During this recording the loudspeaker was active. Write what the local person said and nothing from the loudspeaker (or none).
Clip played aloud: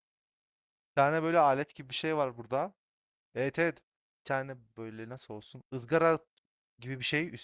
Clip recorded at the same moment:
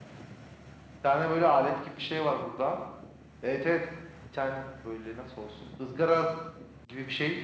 none